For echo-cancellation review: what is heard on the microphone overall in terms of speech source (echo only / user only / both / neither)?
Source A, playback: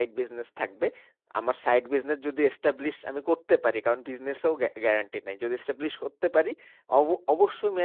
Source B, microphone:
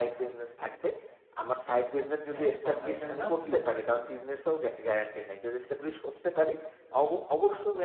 both